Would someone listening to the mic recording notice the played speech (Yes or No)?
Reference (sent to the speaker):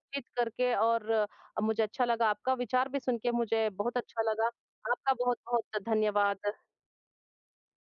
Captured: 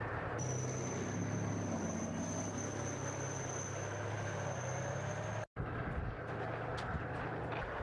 No